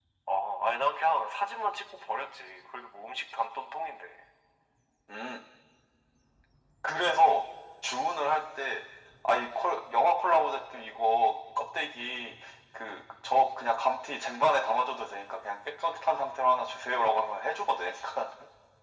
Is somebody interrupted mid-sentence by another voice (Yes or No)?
No